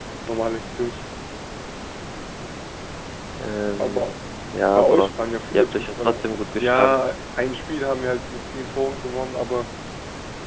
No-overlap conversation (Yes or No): No